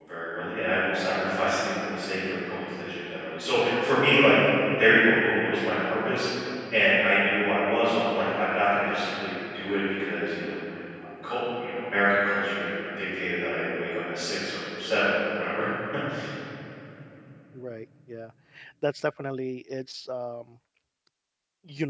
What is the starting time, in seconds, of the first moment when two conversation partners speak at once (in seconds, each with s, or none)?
none